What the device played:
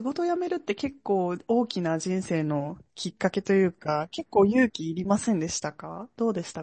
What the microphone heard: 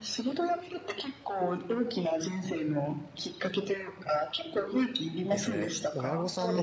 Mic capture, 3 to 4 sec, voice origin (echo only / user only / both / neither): echo only